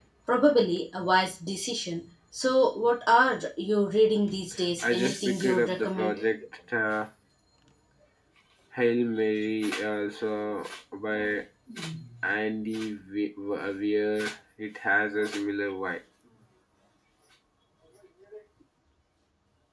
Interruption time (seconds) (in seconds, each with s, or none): 4.8 s